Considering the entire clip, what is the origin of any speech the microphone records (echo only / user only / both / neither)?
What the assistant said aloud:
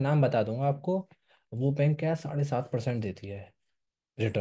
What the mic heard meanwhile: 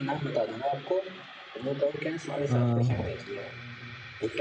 both